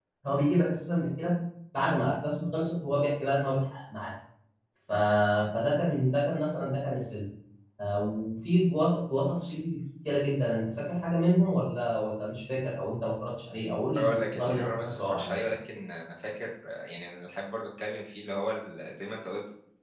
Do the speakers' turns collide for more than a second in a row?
Yes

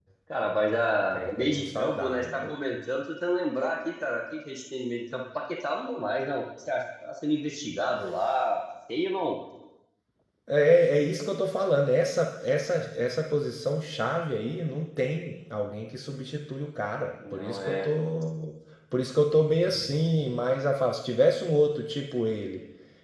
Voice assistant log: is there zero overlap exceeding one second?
No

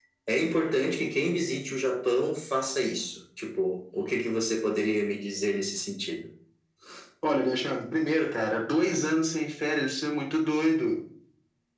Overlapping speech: No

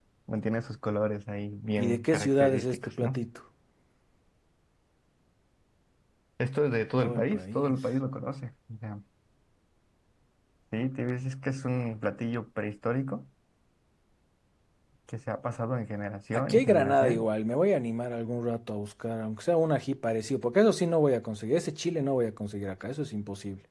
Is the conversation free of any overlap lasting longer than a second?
No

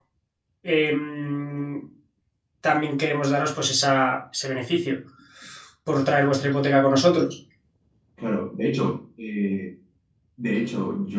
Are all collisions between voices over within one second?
Yes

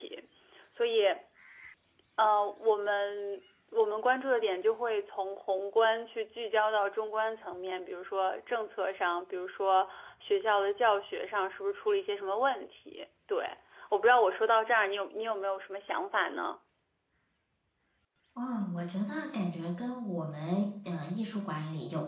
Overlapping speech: No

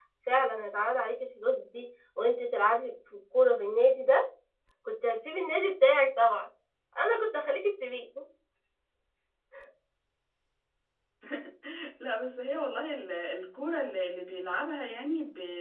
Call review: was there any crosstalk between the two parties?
No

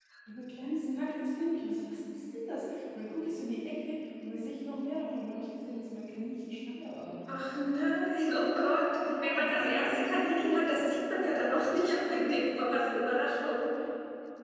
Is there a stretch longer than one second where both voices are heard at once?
Yes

